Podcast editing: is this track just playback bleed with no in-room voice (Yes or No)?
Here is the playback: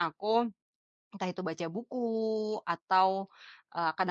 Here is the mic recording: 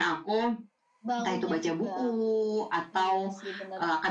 No